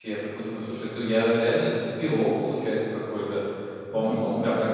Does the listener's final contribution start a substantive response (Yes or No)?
No